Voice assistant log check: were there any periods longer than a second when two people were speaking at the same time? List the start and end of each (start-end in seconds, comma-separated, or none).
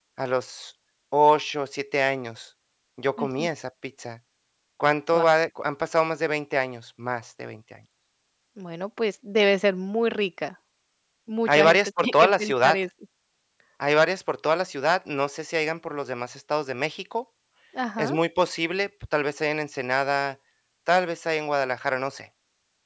11.5-12.8